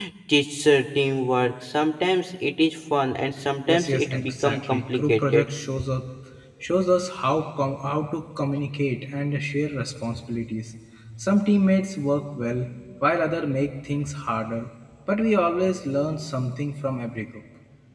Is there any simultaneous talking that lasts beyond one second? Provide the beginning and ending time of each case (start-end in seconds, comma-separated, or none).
3.7-5.4